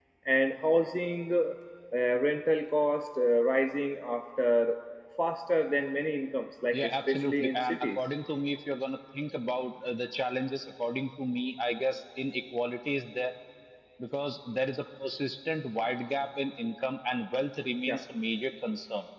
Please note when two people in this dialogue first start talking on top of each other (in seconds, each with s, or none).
6.7 s